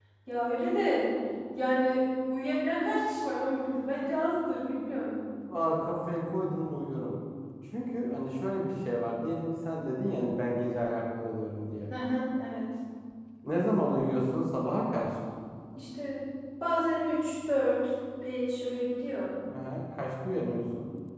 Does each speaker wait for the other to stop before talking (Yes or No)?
Yes